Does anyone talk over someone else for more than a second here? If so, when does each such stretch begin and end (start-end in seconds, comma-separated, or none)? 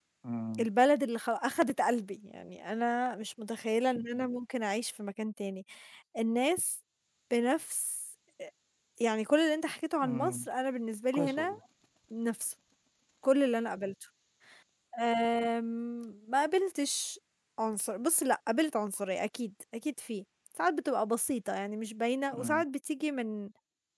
none